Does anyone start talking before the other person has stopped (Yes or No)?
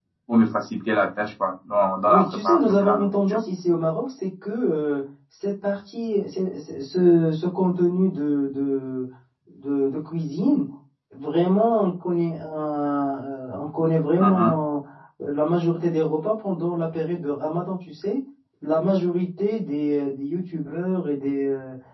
Yes